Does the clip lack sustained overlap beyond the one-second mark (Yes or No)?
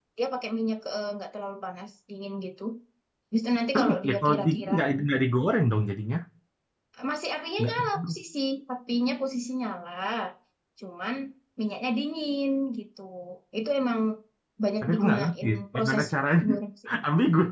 No